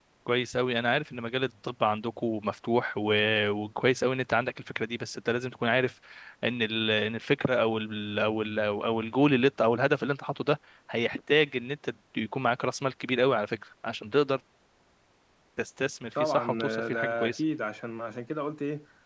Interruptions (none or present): present